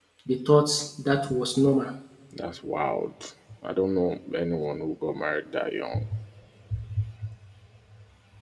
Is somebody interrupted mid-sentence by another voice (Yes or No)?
No